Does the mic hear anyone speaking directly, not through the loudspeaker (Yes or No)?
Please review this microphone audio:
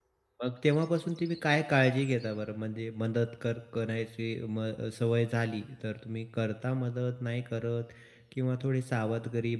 Yes